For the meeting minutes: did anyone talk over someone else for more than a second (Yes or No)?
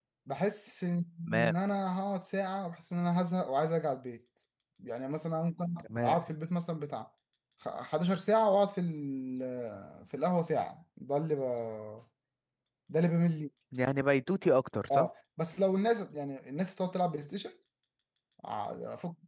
No